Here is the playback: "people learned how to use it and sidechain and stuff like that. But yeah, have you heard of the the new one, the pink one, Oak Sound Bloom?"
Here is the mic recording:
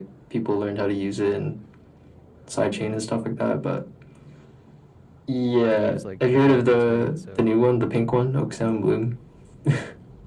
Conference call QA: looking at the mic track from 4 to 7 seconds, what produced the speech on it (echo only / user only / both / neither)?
both